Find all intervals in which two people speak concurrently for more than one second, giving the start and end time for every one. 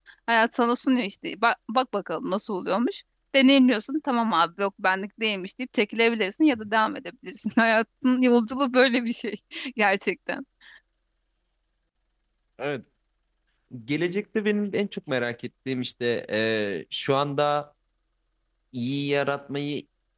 none

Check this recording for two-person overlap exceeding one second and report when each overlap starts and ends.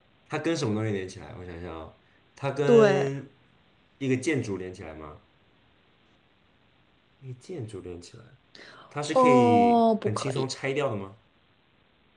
9.1-10.4

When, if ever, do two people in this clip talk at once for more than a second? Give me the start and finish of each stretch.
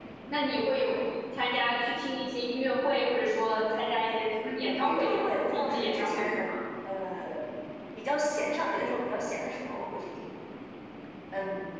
4.4-6.5

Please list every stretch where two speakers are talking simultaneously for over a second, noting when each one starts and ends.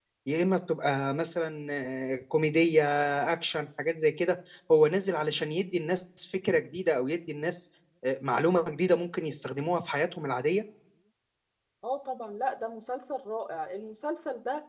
none

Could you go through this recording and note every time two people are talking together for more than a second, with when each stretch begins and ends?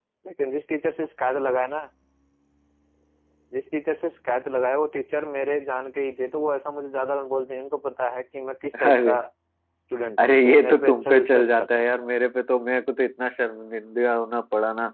10.2-11.9

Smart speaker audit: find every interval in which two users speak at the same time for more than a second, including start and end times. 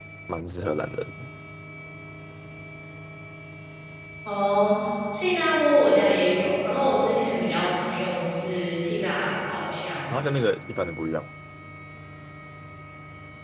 none

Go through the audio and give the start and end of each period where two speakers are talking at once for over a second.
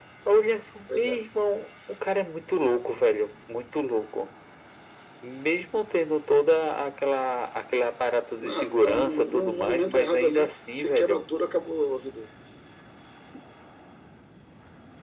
8.4-11.2

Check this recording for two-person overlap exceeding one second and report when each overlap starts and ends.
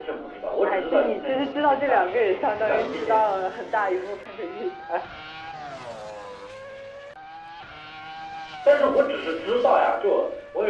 0.6-3.2

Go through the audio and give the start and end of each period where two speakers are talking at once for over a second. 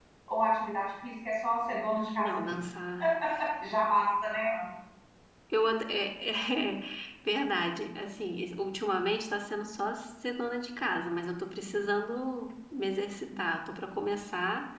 none

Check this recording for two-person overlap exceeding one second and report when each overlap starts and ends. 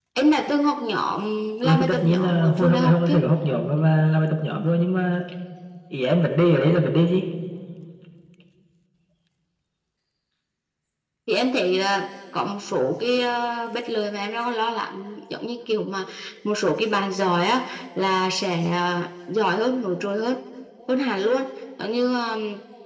1.6-3.2

